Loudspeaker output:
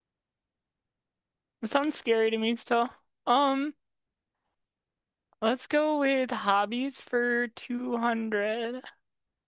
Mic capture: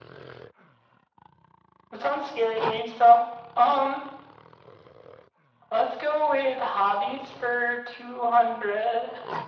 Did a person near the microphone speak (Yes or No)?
No